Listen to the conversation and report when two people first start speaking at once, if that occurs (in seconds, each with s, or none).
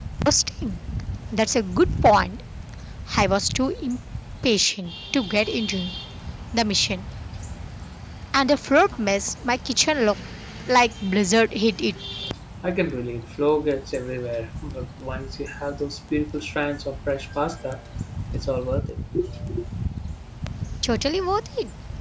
none